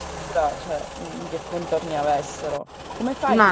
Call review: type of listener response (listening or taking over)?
listening